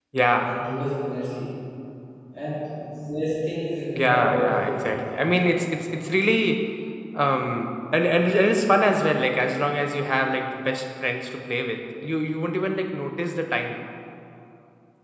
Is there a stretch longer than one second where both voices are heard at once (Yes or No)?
Yes